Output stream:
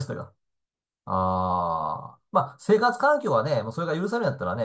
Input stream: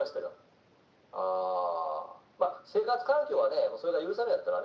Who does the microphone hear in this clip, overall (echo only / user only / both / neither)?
echo only